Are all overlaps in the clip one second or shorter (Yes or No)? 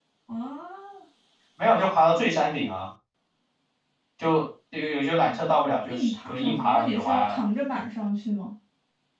No